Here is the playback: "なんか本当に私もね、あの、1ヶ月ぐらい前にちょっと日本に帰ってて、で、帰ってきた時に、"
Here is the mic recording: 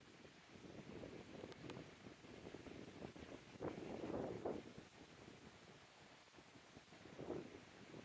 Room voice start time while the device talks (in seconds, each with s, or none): none